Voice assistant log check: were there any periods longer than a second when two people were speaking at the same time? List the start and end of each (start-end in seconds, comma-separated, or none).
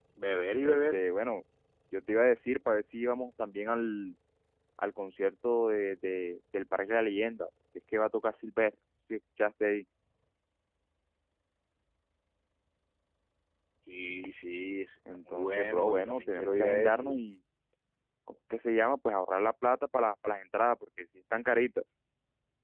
15.3-17.1